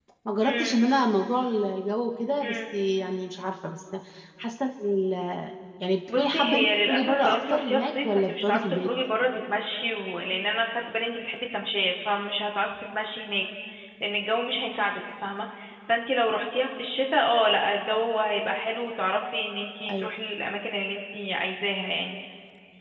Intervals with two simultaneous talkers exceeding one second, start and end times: 6.2-8.9

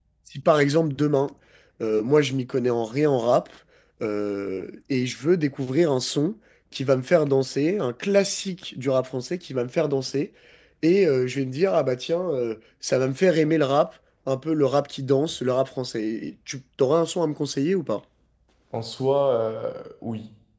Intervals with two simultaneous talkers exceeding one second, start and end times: none

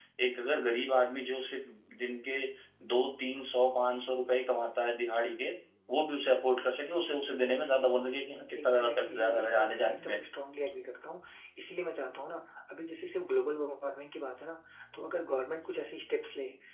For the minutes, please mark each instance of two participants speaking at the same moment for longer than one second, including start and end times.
8.6-10.2

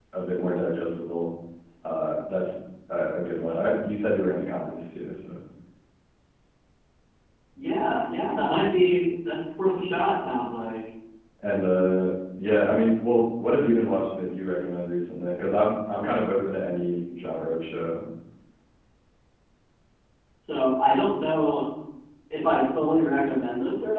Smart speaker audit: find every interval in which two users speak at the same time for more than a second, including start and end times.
none

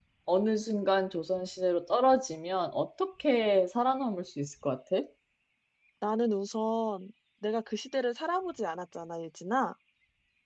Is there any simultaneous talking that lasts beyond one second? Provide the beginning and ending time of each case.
none

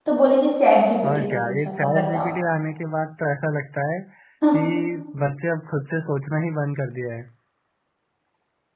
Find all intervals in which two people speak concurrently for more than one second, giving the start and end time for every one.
1.0-2.3

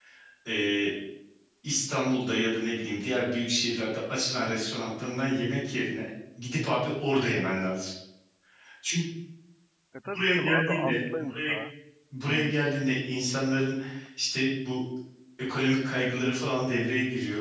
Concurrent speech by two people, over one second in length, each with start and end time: 10.0-11.5

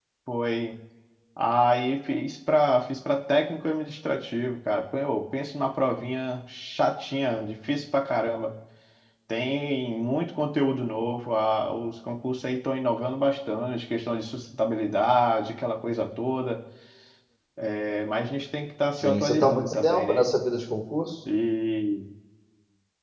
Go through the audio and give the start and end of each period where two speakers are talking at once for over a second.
19.0-20.2

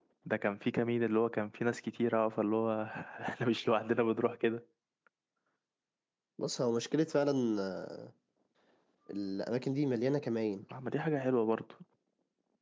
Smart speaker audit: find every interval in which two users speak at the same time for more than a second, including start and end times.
none

